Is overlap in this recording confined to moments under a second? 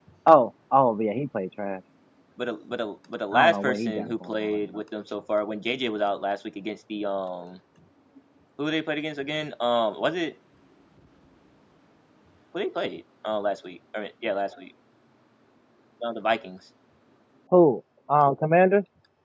No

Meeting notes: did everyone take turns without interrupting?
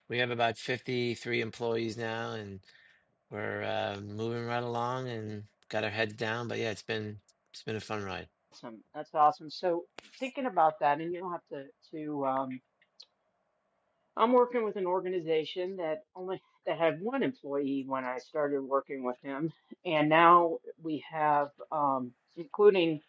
Yes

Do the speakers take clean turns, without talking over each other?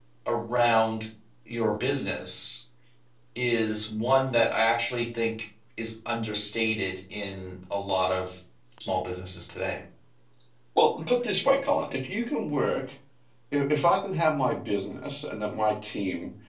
Yes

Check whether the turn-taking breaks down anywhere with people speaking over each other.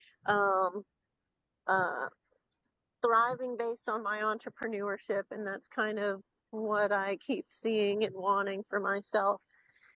No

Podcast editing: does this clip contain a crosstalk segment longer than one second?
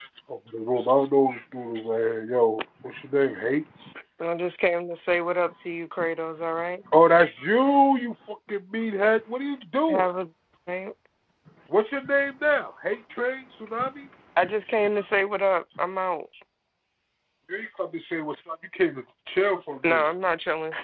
No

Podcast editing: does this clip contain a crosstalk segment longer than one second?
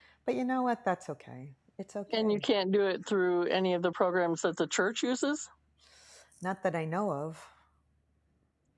No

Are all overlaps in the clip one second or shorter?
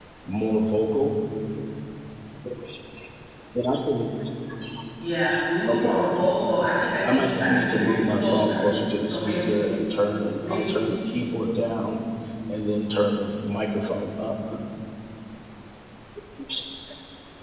No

